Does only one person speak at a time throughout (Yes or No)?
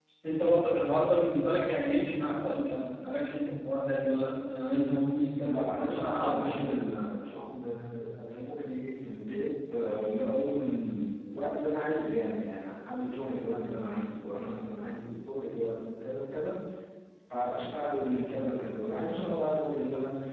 No